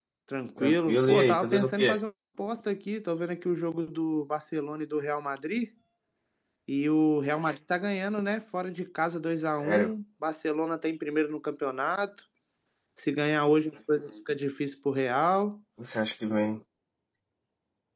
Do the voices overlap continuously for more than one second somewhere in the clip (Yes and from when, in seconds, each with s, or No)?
Yes, from 0.6 s